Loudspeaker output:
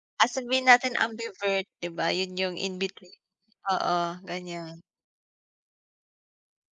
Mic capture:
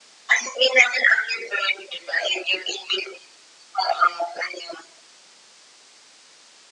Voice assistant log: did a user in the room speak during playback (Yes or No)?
No